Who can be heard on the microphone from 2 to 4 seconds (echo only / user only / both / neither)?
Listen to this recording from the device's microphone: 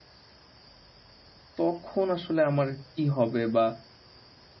user only